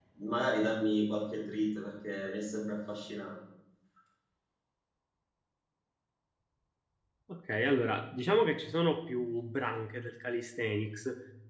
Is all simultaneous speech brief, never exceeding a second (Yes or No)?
Yes